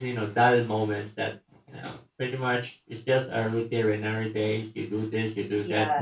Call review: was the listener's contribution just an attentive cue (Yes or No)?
No